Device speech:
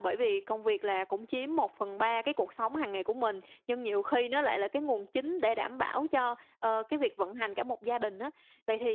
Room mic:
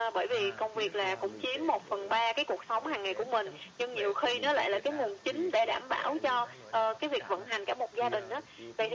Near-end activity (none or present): present